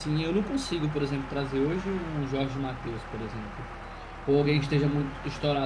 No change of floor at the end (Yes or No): Yes